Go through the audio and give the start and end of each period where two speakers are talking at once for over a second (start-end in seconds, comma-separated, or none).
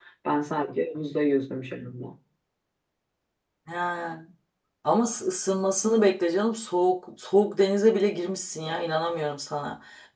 none